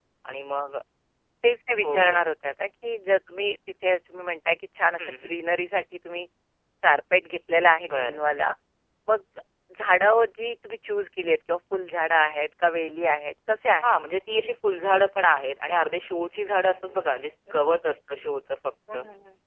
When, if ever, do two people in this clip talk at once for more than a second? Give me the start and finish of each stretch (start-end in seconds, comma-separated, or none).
none